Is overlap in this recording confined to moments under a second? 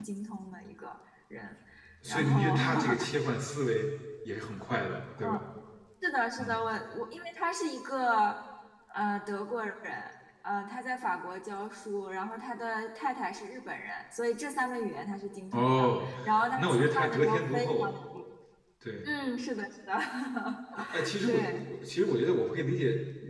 No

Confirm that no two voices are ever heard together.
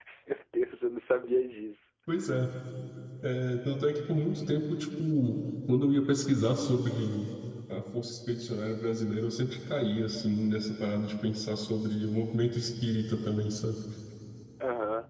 Yes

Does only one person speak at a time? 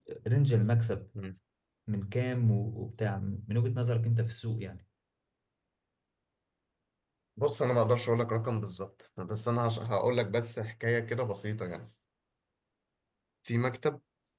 Yes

